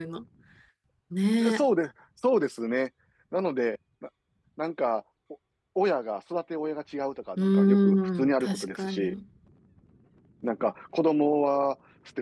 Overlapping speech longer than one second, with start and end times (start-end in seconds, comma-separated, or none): 7.4-9.1